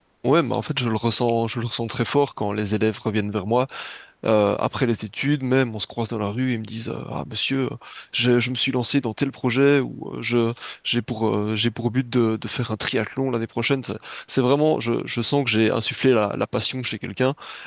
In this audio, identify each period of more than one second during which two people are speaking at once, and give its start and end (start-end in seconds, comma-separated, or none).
none